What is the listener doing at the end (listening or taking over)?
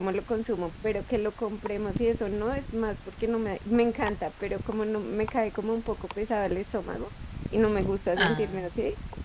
listening